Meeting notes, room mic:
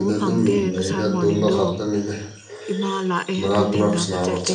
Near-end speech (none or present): present